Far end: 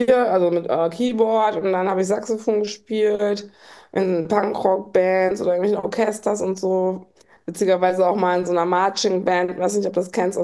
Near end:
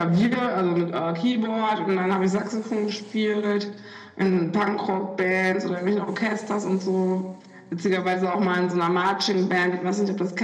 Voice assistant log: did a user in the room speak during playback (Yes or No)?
No